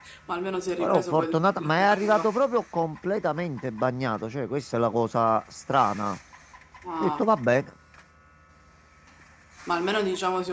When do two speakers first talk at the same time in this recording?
0.8 s

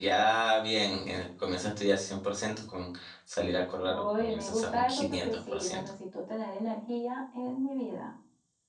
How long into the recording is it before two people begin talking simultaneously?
3.9 s

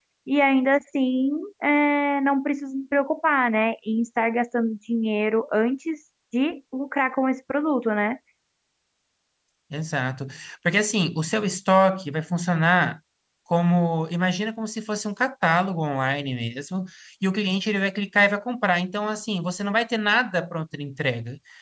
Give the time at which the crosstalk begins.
none

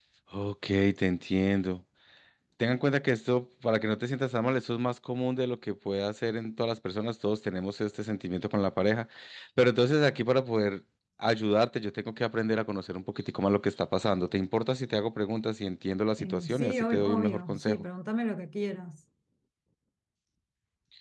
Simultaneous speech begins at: 16.2 s

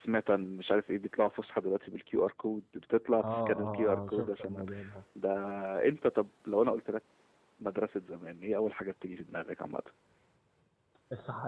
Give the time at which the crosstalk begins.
3.2 s

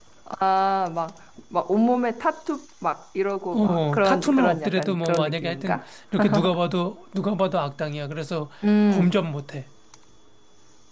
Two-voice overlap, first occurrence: 3.5 s

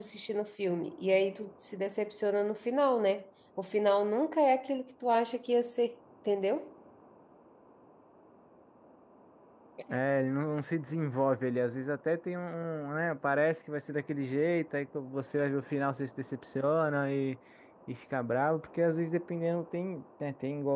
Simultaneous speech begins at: none

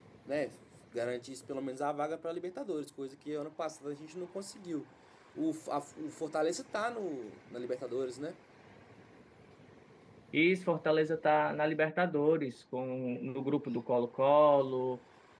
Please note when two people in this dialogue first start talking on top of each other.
none

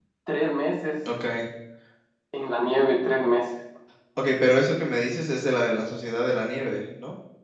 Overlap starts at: none

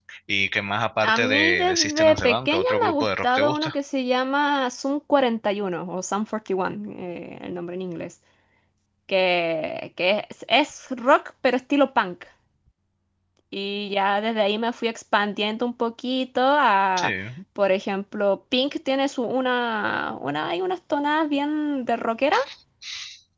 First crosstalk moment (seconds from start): 1.0 s

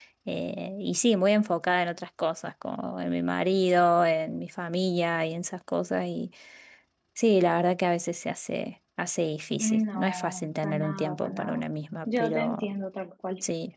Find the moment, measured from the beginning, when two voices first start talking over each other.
9.6 s

